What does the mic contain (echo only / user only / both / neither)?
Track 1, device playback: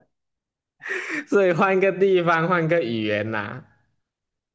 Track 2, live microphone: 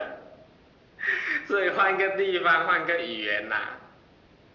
echo only